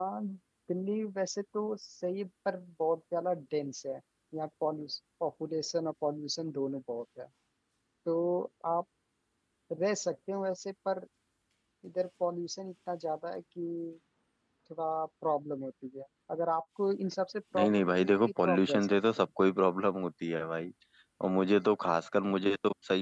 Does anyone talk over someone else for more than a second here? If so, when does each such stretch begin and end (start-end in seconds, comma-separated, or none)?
17.6-19.0